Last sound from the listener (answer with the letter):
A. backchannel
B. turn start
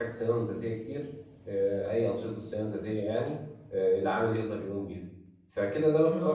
B